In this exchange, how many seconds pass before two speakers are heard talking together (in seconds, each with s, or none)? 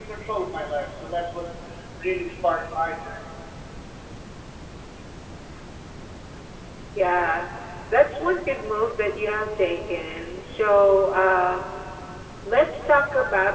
none